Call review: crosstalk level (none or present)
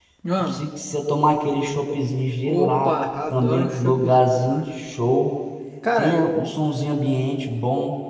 present